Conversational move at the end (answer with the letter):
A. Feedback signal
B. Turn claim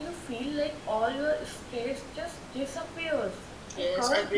B